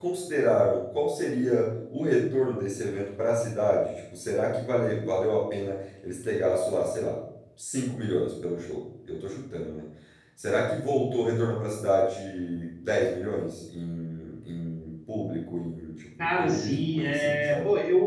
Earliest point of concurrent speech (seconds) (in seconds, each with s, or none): 16.2 s